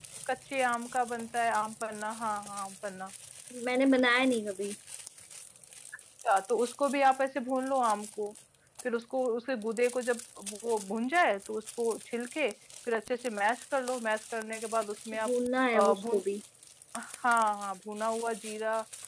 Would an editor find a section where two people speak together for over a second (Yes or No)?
No